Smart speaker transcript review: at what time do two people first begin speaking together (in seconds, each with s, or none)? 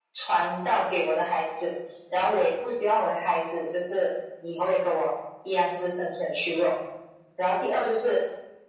none